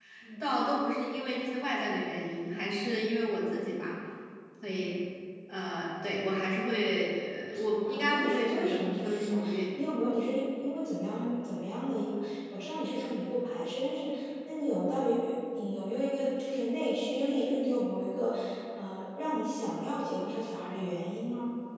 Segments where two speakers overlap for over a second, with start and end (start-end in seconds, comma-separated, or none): 7.8-9.6